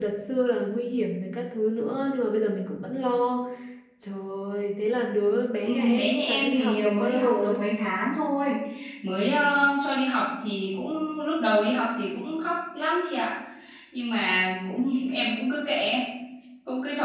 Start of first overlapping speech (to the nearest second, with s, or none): 6 s